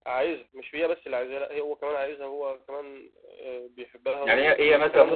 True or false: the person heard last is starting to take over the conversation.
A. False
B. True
B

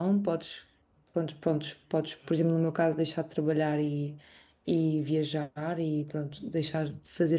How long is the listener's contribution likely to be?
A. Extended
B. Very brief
B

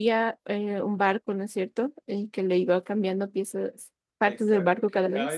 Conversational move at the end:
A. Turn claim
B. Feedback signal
A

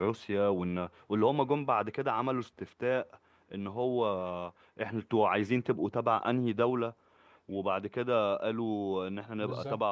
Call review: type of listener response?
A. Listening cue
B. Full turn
A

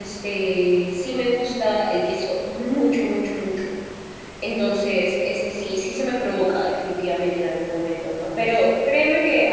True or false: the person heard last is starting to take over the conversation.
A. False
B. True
A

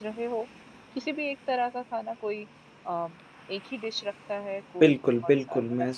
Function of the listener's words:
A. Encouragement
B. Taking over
B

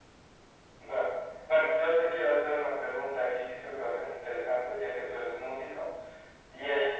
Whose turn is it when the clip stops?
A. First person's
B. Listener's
A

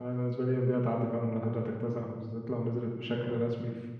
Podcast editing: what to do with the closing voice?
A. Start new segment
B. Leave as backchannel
B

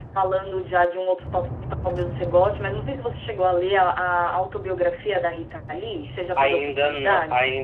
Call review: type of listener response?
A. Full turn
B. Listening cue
A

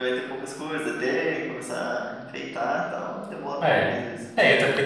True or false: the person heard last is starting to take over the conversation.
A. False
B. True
B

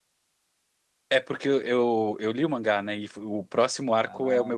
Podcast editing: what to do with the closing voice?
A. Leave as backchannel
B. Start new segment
A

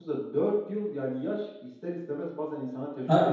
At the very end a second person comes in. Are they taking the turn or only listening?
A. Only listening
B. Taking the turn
B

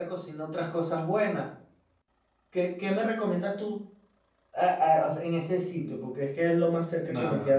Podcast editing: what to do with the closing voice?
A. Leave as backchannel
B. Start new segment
B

